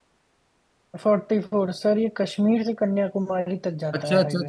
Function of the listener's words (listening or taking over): taking over